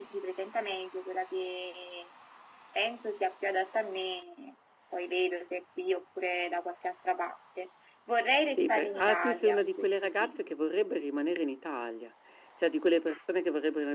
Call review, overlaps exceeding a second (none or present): present